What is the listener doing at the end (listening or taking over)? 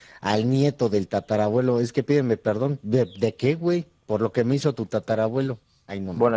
taking over